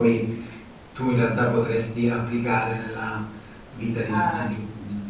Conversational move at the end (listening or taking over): listening